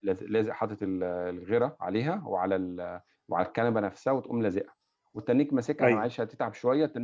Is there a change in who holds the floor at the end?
No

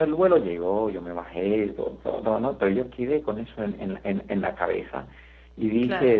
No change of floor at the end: Yes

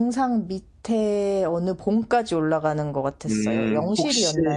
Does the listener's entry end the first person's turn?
Yes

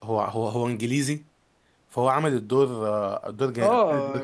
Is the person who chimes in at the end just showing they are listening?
No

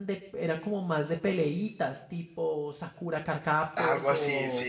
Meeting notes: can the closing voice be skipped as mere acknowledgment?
No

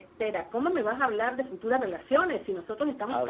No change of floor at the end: Yes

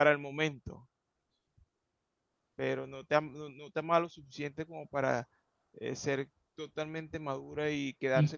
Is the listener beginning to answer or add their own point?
No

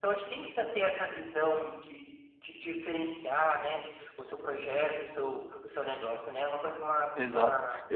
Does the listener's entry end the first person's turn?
Yes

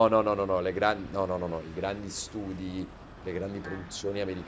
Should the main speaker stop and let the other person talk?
No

